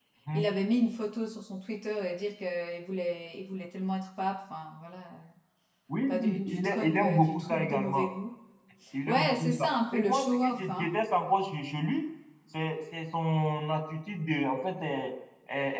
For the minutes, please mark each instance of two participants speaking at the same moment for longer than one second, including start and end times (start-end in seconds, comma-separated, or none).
6.1-8.1, 9.1-10.9